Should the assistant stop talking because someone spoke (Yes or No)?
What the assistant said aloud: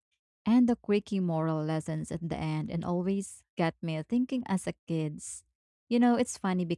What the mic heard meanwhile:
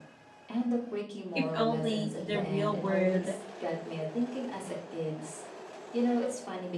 Yes